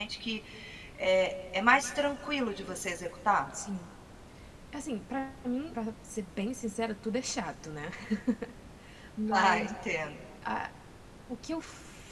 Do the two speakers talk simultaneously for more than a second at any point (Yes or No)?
No